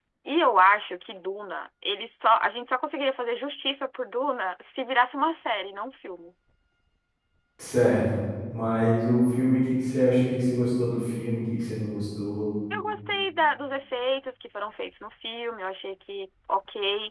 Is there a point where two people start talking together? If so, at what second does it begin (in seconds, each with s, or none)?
none